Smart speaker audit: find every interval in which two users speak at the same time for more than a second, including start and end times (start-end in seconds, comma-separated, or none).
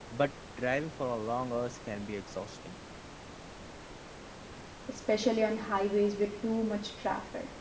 none